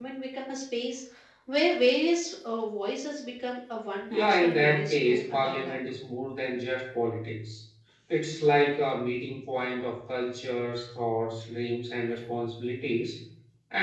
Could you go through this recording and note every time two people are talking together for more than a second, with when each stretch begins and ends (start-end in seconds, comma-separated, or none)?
4.1-5.8